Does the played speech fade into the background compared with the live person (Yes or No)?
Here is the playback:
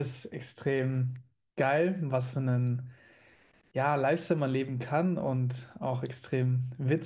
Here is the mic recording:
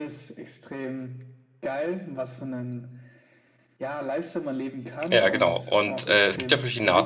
Yes